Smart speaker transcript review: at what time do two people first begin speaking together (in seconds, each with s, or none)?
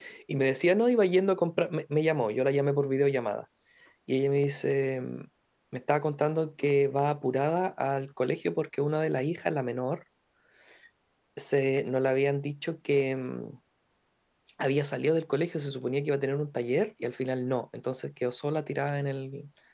none